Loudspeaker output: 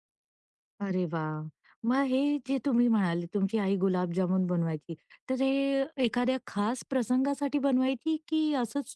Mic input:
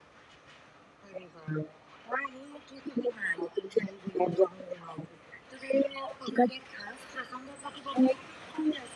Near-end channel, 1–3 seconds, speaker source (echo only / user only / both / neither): echo only